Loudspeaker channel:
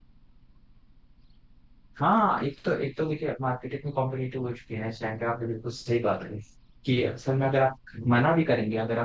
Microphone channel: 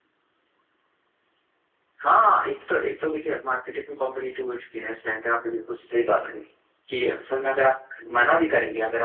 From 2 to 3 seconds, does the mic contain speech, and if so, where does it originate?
echo only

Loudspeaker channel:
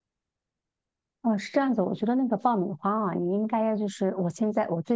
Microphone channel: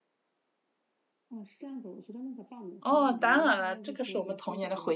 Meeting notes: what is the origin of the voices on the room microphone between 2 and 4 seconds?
both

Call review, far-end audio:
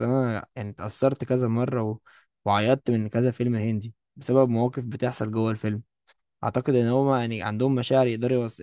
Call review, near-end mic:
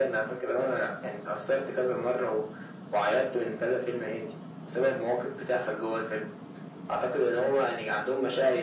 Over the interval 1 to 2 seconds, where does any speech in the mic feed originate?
echo only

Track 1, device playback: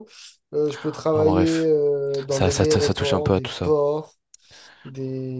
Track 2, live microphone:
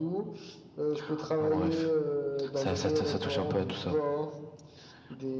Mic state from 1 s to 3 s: echo only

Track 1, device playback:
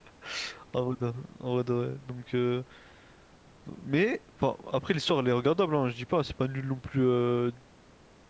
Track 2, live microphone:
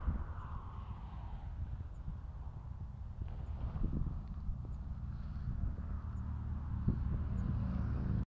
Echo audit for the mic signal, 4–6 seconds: neither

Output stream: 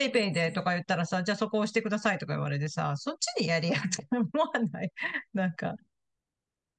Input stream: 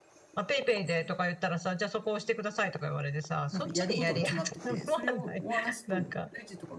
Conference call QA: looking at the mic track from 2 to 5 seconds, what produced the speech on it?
both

